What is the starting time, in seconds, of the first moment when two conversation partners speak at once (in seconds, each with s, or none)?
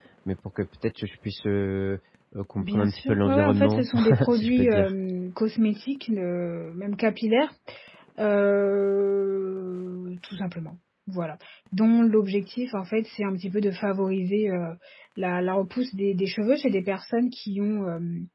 2.6 s